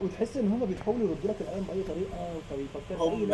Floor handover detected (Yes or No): Yes